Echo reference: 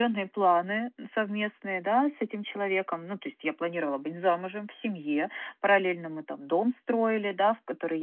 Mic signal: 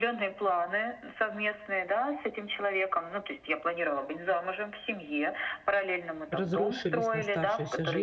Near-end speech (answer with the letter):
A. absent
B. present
B